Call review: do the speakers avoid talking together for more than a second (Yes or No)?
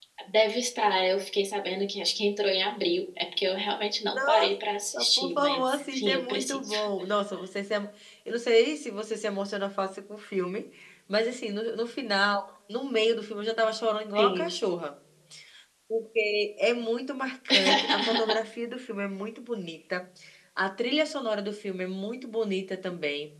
No